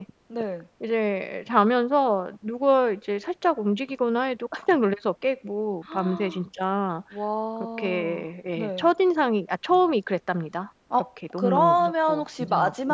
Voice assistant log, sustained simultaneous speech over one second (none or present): present